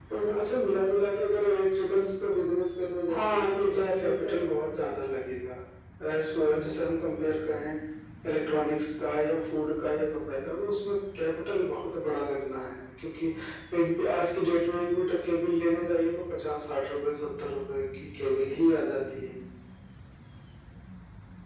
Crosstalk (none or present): present